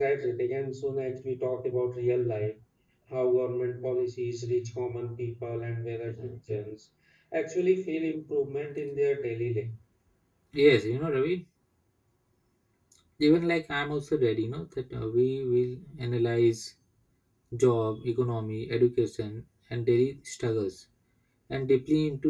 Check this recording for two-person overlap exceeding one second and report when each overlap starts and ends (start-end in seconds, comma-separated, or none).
none